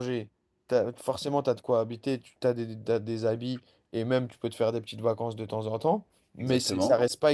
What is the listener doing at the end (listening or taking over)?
listening